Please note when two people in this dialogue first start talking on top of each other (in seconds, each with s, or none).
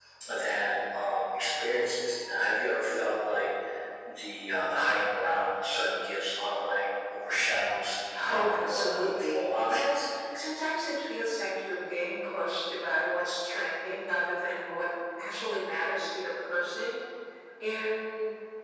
8.1 s